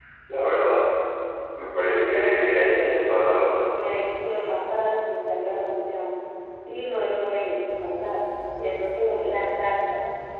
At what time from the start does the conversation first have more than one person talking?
1.8 s

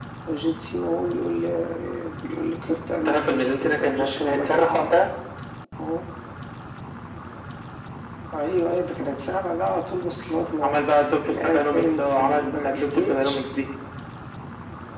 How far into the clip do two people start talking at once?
3.0 s

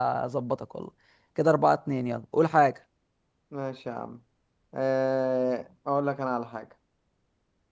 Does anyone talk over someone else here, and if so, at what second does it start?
none

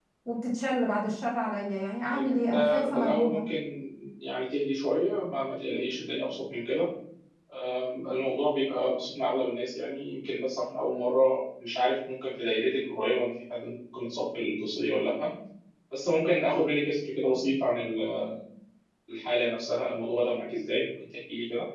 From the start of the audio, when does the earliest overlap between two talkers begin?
2.1 s

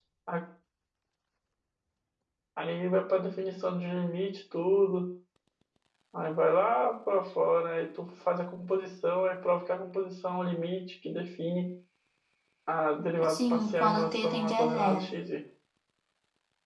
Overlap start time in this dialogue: 13.3 s

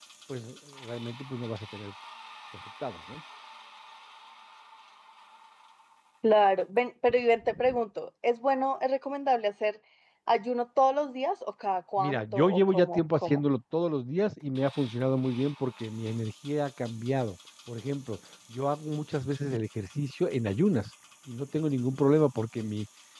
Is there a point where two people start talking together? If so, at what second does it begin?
12.0 s

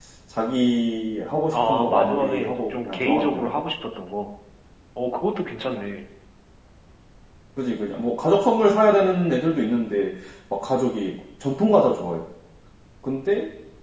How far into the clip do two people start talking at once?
1.5 s

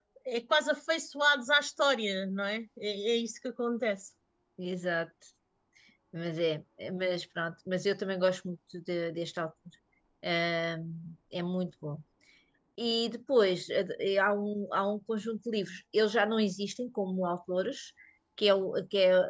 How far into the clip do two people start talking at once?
none

